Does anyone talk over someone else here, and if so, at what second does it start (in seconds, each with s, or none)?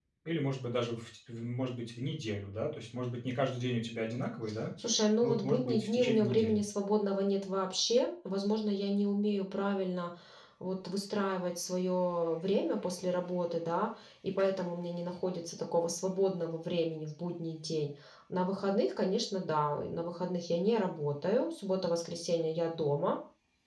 5.2 s